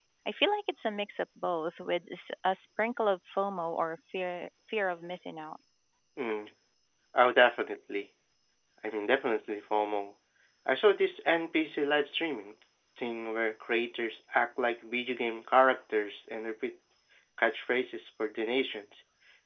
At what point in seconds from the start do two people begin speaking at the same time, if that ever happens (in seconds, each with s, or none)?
none